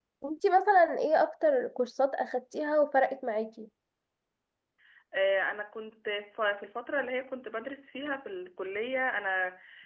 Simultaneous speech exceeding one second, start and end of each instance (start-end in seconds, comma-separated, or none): none